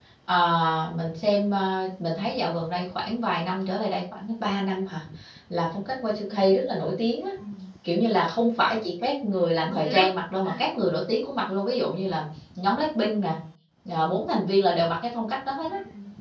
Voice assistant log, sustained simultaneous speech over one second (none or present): none